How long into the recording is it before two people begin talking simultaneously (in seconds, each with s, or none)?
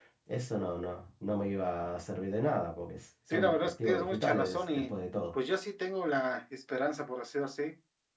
3.3 s